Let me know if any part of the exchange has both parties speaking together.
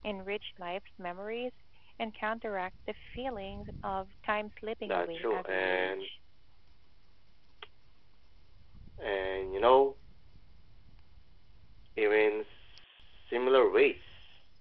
Yes, from 4.9 s

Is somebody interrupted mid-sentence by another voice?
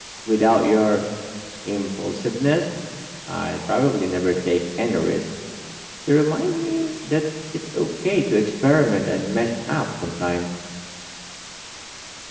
No

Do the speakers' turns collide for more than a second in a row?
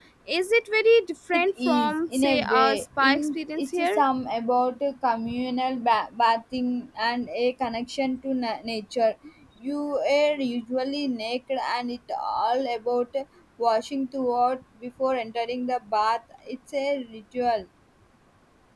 Yes, from 1.3 s

